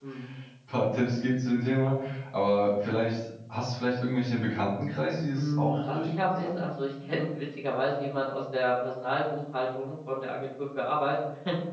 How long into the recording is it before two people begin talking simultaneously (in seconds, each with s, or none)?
5.3 s